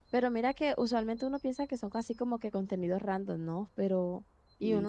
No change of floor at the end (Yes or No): Yes